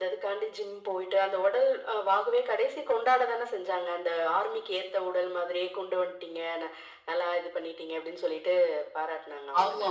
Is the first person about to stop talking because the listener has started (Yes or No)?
Yes